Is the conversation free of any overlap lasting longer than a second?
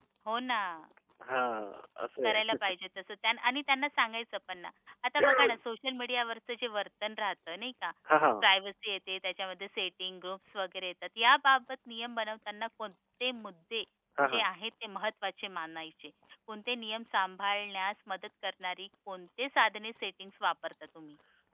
Yes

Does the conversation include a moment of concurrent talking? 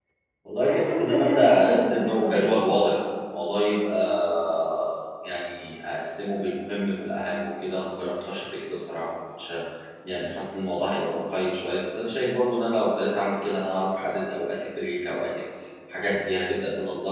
Yes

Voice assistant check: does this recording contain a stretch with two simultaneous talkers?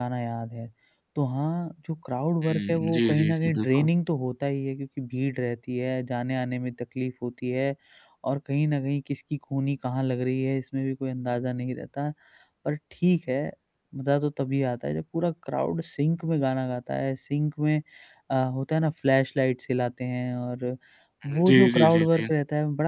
Yes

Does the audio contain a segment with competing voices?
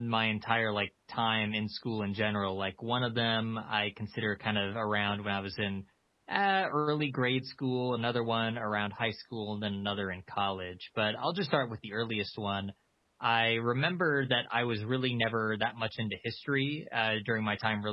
No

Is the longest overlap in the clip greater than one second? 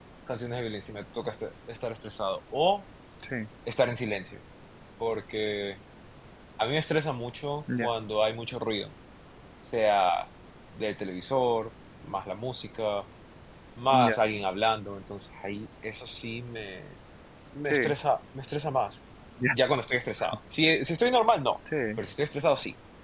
No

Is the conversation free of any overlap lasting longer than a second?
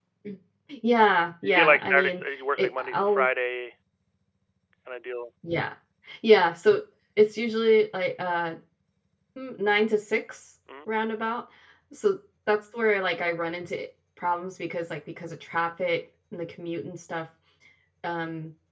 No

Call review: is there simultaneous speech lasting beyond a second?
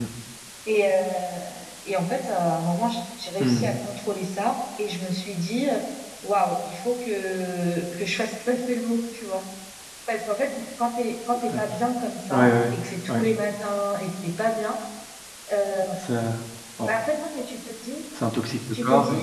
No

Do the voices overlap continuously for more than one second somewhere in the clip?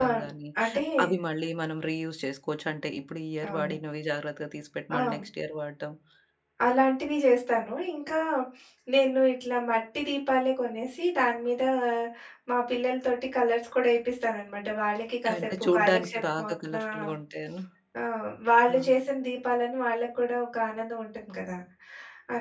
Yes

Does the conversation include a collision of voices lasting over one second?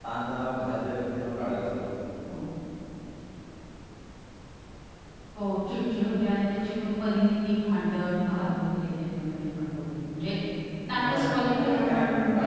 Yes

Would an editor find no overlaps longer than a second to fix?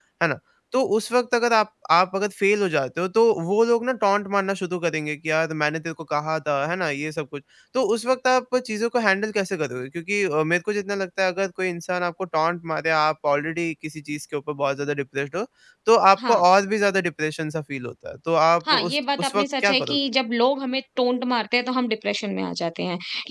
No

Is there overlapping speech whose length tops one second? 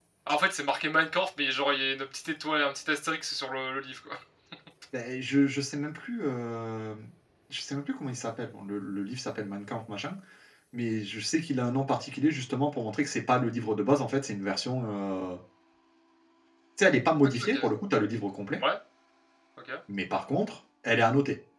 No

